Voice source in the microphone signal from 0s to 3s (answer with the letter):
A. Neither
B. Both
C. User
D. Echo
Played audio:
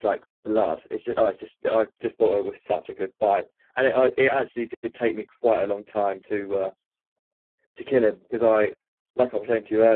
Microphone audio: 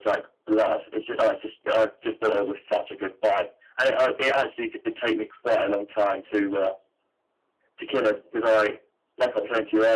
D